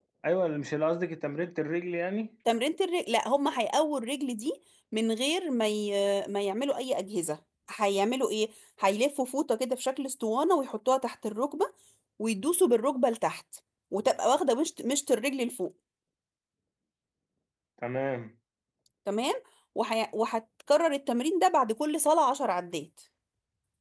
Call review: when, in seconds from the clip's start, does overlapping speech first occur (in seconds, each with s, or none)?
none